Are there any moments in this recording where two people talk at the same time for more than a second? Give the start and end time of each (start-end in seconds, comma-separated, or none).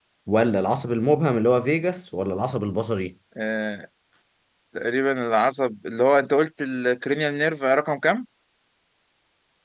none